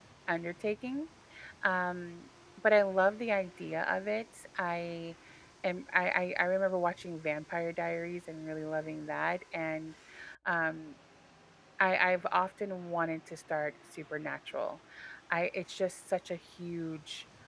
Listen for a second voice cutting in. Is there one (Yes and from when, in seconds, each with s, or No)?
No